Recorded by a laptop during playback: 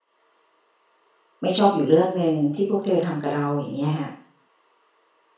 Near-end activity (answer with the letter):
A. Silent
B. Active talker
B